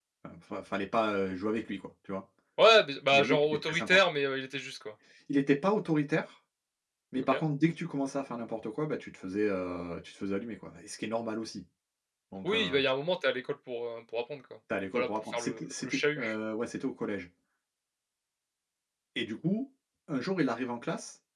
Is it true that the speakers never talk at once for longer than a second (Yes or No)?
No